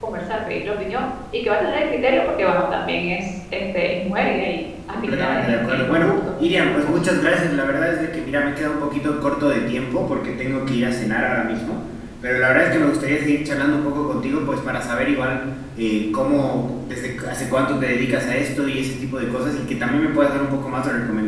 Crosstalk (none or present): present